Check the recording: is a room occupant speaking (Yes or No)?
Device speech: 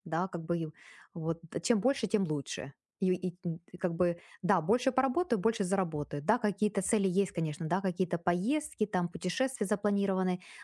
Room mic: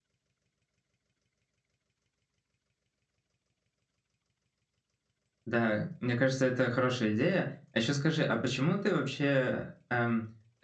Yes